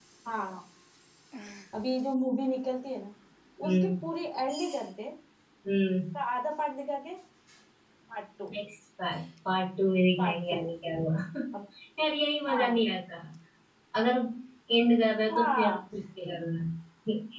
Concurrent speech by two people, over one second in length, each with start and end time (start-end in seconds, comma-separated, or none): none